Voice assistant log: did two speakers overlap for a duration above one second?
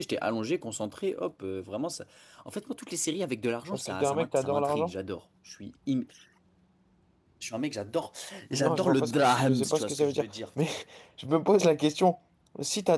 Yes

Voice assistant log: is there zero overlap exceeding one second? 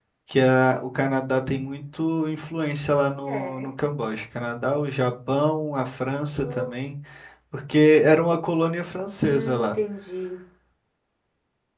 Yes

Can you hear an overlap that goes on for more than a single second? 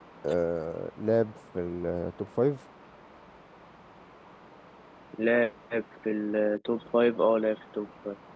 No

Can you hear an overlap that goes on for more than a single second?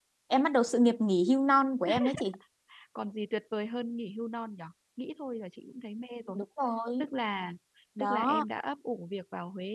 No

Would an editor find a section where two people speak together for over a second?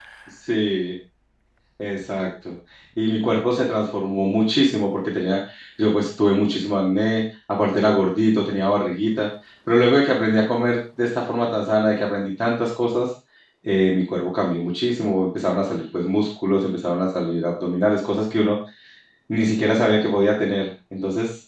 No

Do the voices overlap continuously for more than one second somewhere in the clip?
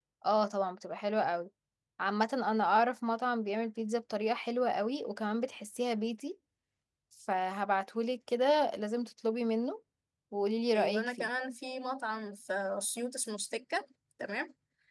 No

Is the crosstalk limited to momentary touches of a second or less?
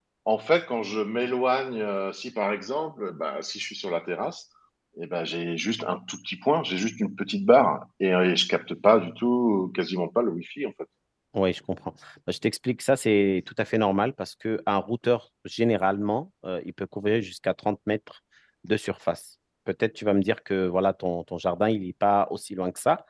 Yes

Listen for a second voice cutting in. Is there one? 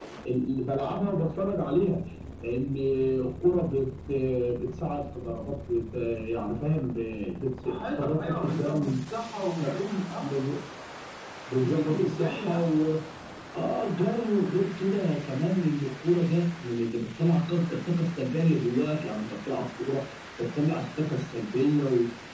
Yes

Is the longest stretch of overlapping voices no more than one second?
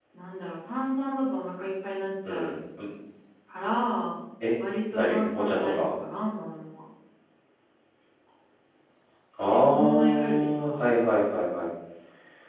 No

